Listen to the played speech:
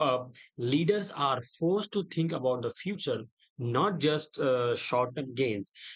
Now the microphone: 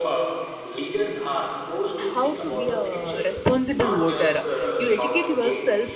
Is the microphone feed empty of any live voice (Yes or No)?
No